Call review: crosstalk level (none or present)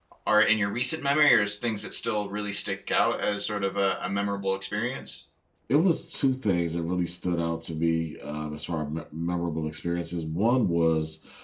none